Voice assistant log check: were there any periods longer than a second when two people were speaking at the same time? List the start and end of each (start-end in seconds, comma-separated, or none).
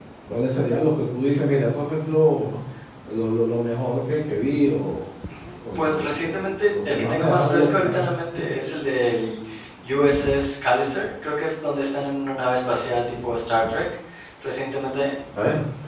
5.8-8.0